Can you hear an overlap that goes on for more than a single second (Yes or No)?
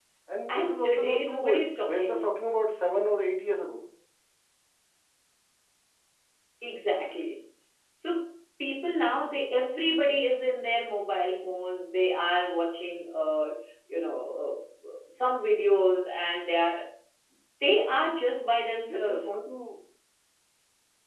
Yes